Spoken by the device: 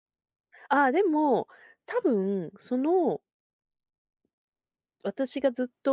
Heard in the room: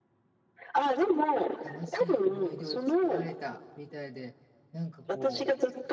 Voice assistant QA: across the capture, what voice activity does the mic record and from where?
both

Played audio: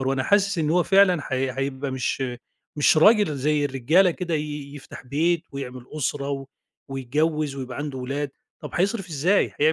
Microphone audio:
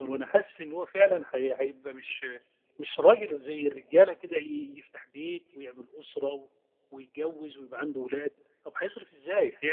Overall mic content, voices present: echo only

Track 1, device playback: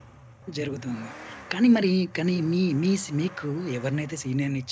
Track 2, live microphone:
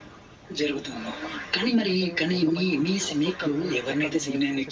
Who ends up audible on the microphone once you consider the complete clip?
both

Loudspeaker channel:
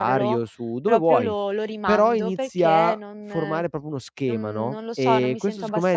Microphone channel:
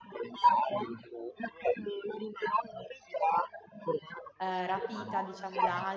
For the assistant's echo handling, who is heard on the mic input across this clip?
both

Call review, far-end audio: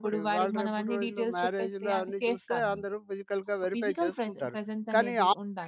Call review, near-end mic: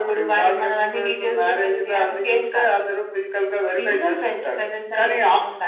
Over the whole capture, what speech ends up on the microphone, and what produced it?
echo only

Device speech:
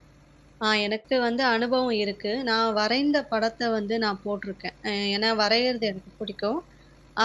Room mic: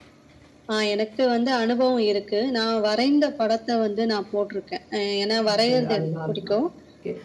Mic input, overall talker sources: both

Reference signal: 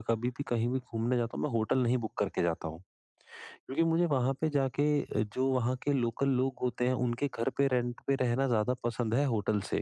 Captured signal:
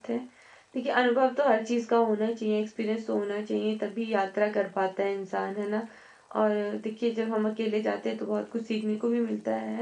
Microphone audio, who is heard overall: user only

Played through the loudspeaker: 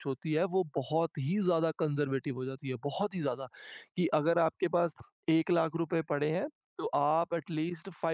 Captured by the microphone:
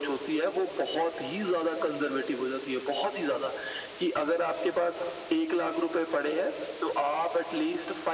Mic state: echo only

